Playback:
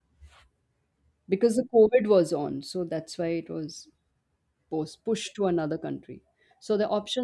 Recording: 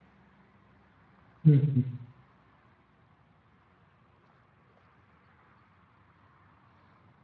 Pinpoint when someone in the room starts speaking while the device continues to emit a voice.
1.4 s

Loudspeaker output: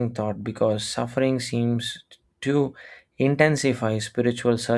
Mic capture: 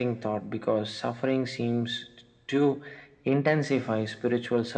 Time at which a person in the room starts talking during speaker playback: none

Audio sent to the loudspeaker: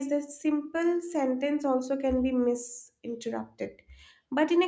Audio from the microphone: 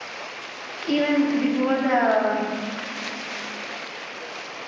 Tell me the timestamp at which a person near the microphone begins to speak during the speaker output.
0.8 s

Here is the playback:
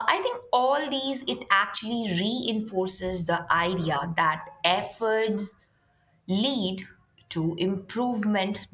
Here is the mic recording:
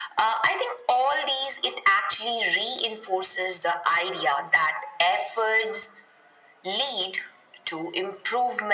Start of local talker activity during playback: none

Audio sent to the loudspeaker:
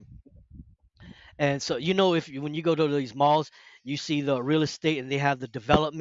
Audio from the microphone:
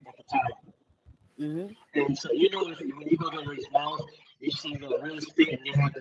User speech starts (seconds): 1.4 s

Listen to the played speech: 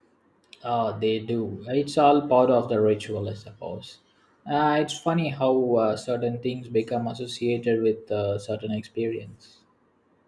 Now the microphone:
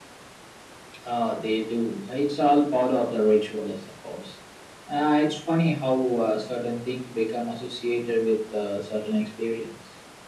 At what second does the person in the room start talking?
none

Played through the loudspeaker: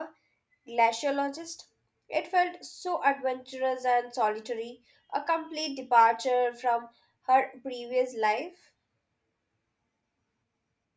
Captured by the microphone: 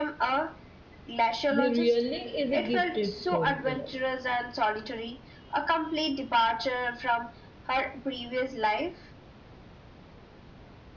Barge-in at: 1.5 s

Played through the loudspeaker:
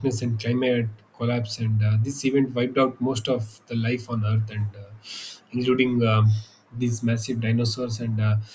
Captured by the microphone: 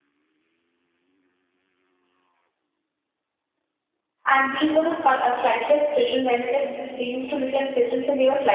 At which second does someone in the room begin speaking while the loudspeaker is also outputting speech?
4.3 s

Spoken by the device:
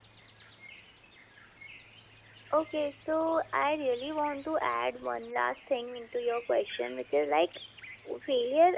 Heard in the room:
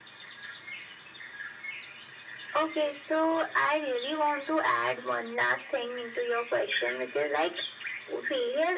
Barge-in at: none

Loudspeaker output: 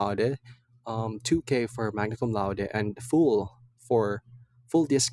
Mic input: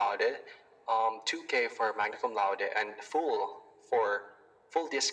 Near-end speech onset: none

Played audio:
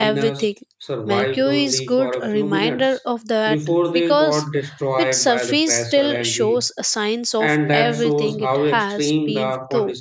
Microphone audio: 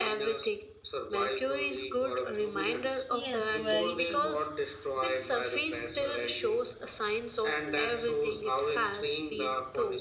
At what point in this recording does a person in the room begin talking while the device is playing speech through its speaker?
3.1 s

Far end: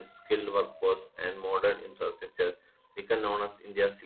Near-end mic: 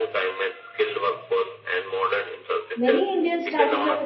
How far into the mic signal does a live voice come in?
2.7 s

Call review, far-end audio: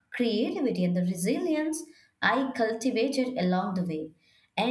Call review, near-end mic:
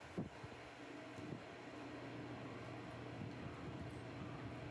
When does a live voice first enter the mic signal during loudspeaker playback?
none

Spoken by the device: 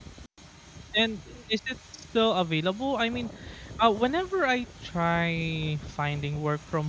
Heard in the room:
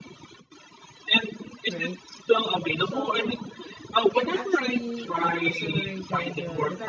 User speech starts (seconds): 1.6 s

